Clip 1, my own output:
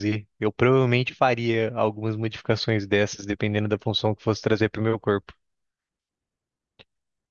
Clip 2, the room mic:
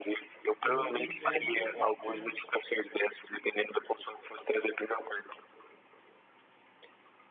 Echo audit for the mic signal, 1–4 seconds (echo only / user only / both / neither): both